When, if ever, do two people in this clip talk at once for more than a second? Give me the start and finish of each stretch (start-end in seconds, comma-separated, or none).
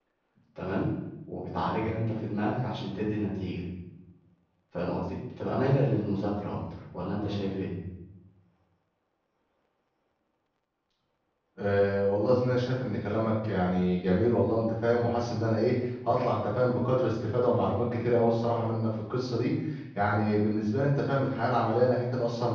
none